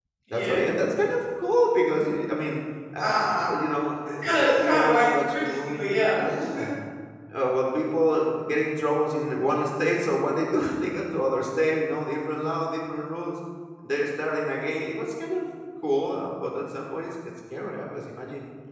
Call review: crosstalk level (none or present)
present